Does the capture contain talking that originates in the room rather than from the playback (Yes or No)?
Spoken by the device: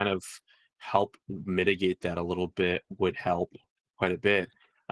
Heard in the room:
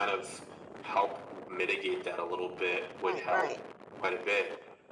Yes